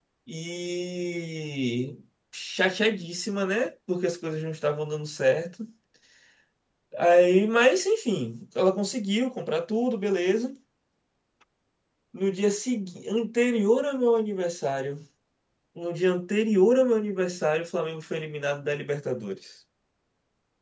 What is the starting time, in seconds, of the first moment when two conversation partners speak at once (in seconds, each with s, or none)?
none